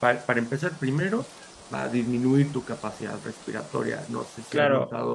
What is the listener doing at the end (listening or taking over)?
taking over